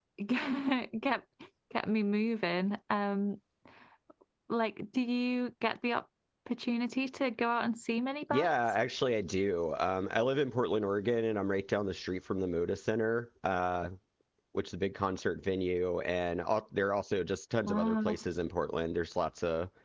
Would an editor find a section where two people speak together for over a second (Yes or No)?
No